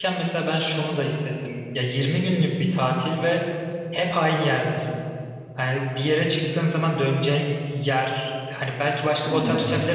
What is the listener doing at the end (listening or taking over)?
listening